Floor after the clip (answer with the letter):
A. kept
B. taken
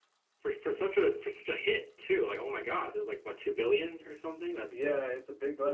B